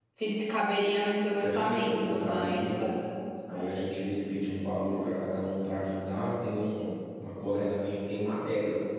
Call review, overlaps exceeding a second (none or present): present